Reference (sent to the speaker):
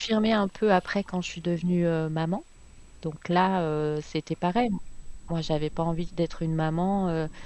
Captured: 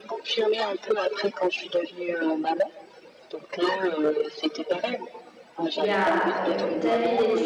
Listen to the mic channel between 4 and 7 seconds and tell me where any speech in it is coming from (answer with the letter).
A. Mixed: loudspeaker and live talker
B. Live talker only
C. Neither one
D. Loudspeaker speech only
A